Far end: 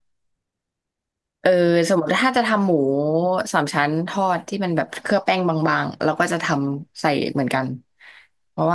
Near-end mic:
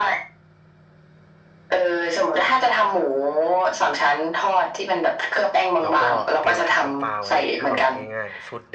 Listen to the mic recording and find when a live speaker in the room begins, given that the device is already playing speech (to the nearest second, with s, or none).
6 s